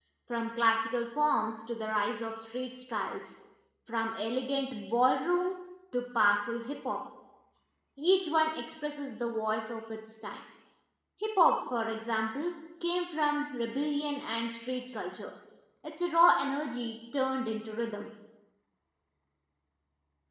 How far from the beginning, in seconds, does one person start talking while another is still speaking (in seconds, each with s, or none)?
none